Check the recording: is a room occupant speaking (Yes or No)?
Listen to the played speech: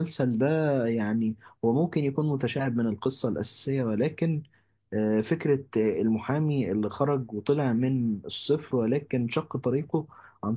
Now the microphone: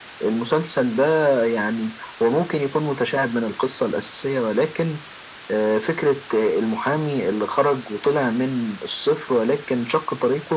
No